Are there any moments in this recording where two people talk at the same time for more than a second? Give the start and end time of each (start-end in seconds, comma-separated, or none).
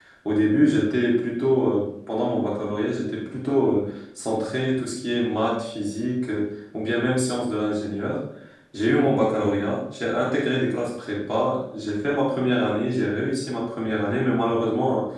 none